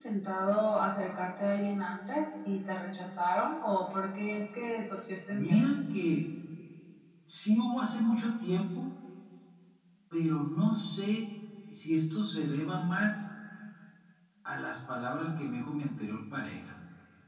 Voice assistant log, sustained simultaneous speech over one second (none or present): none